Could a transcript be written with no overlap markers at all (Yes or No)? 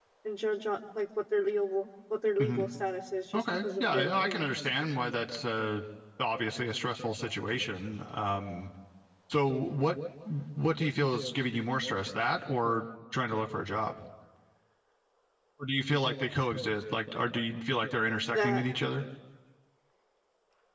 No